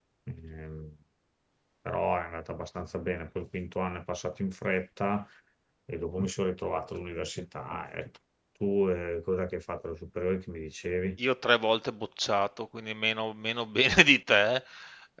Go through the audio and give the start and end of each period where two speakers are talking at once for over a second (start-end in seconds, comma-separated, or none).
none